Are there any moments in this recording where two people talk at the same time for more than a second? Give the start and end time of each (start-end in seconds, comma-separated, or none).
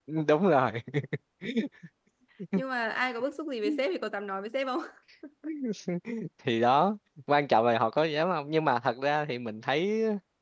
none